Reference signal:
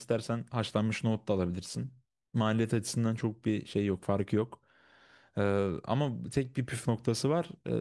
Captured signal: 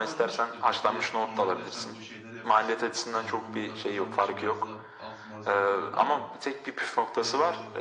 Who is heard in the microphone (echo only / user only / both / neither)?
both